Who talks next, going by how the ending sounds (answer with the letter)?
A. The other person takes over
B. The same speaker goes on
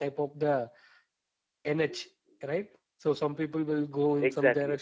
B